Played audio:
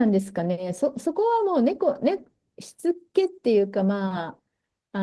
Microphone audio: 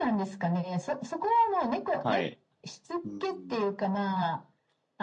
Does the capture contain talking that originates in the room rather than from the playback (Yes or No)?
Yes